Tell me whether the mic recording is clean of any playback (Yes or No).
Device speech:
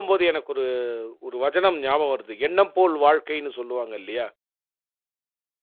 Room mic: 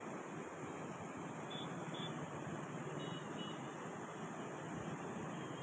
Yes